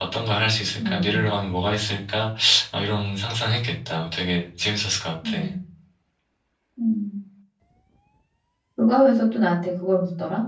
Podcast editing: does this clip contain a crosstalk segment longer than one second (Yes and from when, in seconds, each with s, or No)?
No